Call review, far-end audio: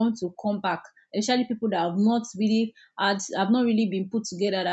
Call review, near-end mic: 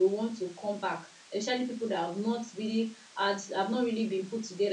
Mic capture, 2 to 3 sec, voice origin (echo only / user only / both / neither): echo only